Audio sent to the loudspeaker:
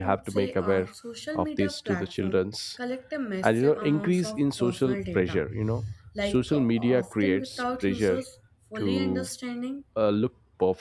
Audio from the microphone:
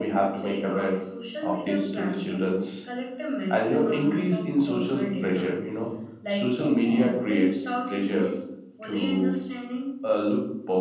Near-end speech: none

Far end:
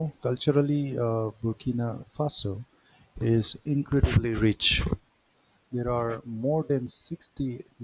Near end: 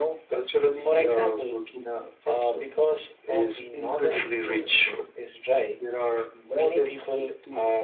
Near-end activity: present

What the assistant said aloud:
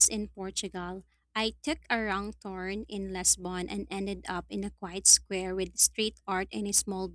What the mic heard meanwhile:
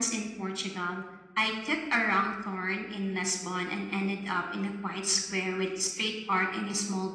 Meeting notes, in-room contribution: none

